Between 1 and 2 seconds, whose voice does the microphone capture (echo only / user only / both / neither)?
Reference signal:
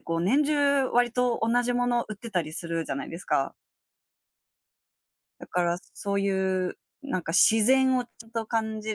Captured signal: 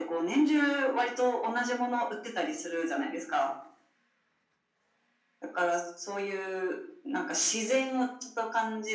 echo only